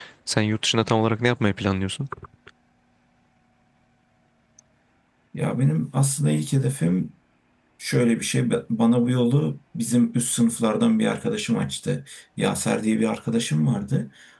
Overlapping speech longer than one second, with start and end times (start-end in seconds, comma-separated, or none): none